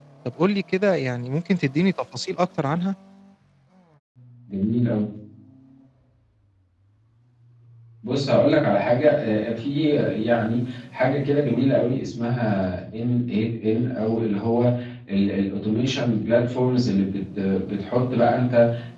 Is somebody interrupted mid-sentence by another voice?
No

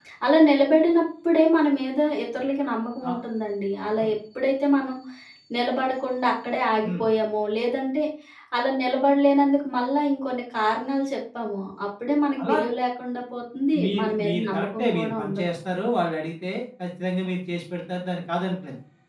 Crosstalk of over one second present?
Yes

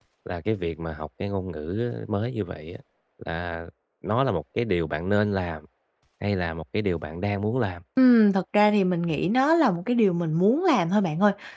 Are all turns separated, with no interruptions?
Yes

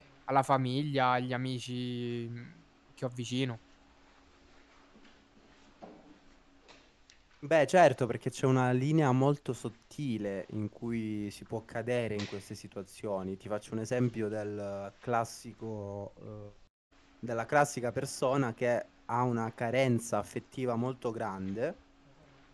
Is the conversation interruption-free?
Yes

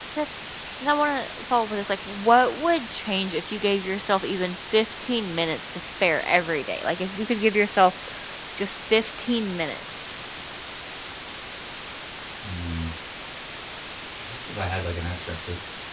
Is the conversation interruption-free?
Yes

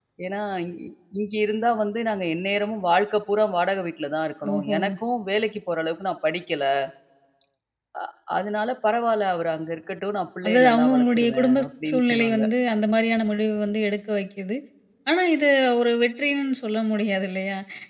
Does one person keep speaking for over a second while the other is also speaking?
Yes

